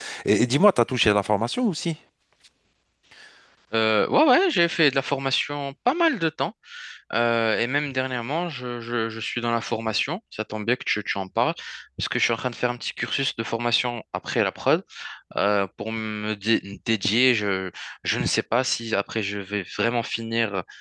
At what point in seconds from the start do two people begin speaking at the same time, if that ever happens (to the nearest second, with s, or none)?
none